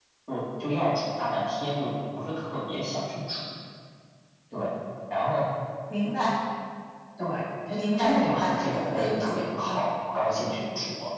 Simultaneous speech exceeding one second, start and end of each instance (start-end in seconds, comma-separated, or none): 7.7-9.9